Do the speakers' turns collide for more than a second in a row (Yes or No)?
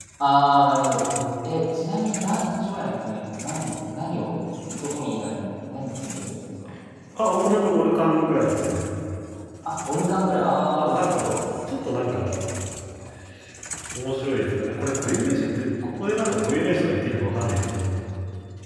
No